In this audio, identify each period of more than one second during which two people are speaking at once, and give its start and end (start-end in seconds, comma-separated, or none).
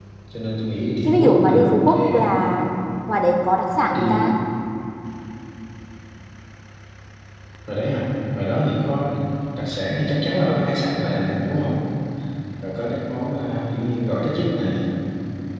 1.1-2.2